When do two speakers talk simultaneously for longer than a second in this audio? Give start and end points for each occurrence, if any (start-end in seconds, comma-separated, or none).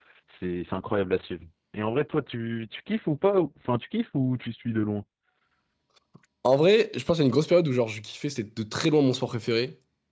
none